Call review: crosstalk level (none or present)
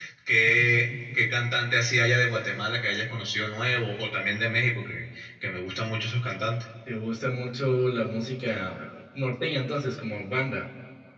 none